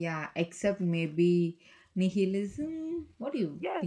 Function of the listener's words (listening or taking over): taking over